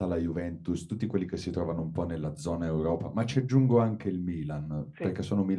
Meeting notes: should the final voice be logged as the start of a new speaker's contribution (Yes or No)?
No